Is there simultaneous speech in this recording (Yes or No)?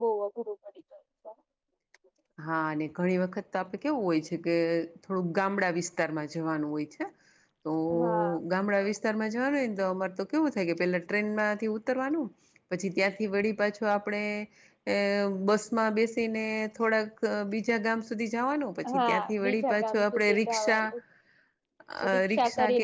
Yes